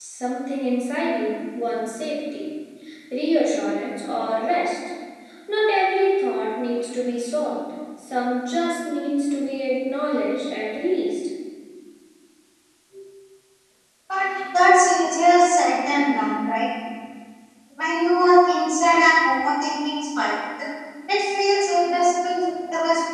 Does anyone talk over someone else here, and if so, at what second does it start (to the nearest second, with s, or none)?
none